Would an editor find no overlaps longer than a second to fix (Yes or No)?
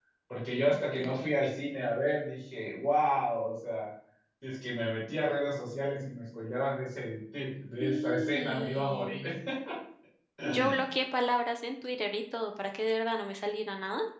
No